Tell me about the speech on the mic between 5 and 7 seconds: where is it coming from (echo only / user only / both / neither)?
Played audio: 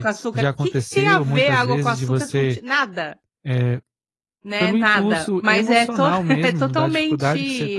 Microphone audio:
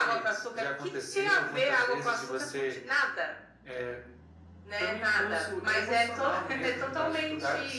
echo only